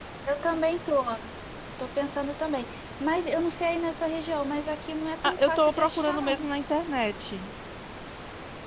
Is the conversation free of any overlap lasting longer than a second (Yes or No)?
No